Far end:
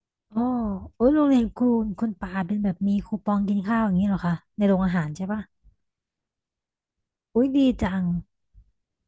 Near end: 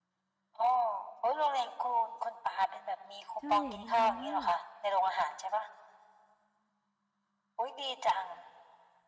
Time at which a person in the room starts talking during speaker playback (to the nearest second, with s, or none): 3 s